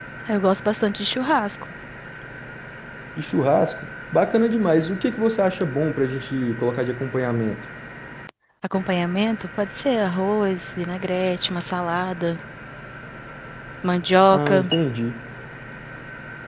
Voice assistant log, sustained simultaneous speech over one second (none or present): none